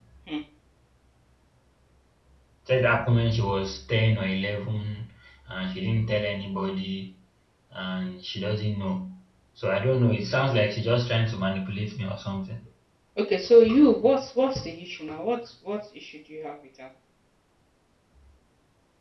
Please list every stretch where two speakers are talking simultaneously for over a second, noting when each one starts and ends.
none

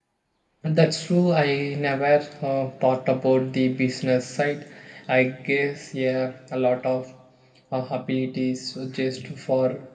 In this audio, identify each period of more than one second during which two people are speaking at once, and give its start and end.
none

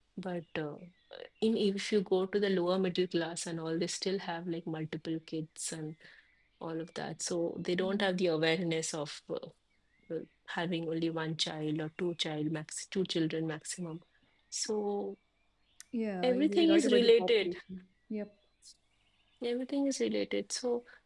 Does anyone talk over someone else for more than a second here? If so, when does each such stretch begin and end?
16.2-17.6

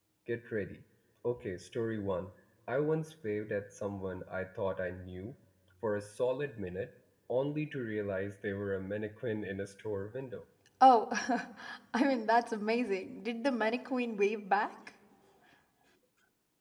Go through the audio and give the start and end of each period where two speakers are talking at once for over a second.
none

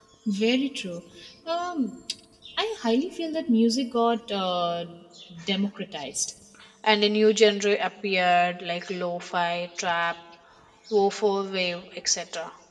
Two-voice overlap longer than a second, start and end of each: none

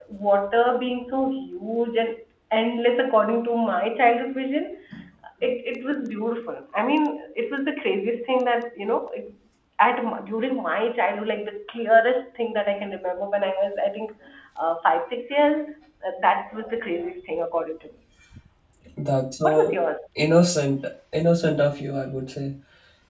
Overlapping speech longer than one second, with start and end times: none

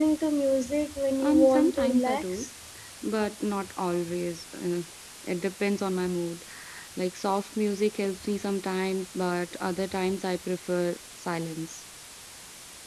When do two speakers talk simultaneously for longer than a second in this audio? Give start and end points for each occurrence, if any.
1.2-2.5

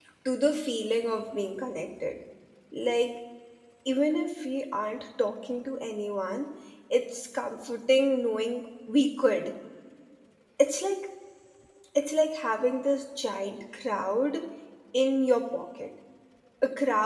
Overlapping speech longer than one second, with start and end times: none

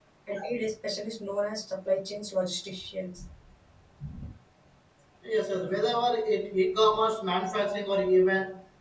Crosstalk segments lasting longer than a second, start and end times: none

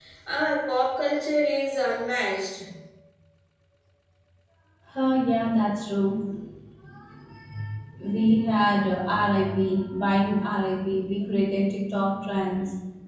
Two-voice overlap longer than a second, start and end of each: none

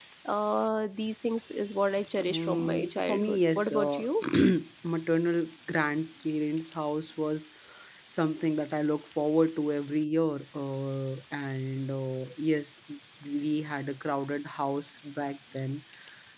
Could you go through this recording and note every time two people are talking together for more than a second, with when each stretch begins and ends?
2.3-4.0

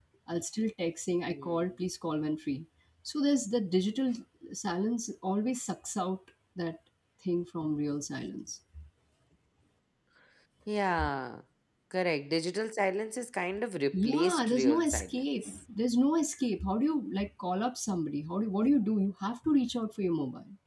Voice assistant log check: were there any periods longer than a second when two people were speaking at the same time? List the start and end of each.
13.9-15.6

